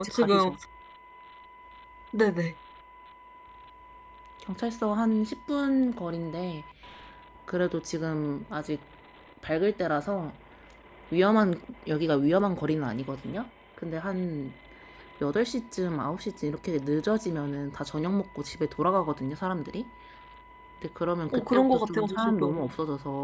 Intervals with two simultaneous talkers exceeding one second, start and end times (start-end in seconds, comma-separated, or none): 21.3-22.6